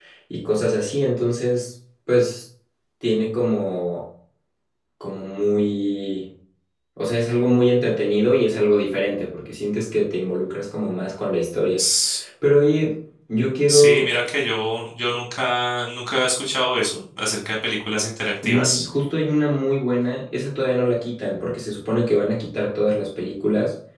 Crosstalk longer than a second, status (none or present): none